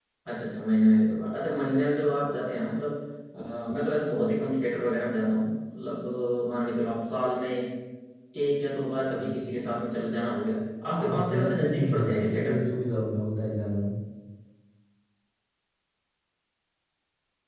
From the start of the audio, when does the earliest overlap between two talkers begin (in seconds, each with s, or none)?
10.8 s